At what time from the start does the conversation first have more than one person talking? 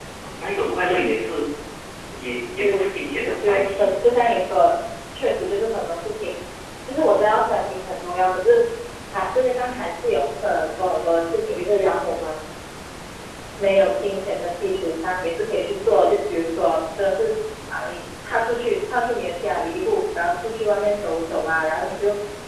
2.6 s

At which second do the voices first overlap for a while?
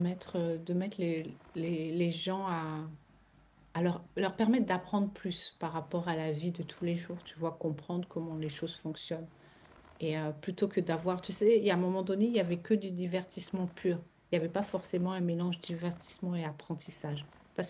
none

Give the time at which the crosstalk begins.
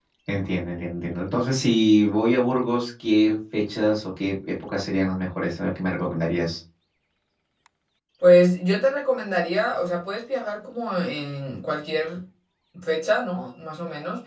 none

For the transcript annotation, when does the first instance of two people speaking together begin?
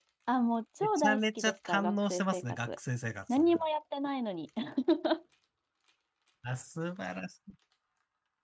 0.8 s

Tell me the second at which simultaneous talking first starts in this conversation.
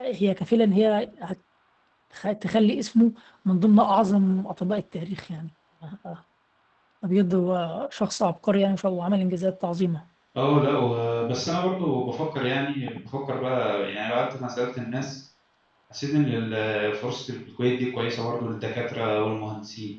none

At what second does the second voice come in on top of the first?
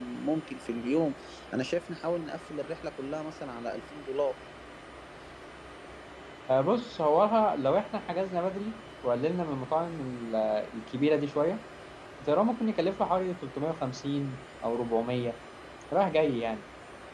none

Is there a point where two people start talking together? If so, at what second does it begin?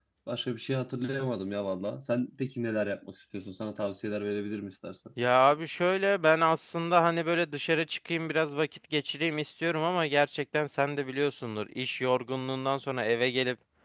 none

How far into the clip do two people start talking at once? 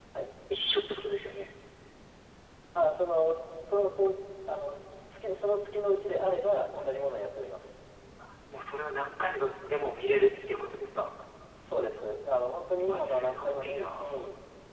12.9 s

